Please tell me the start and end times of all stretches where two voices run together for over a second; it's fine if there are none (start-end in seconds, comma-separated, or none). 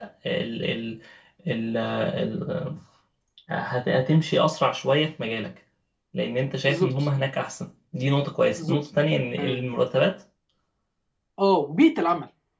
none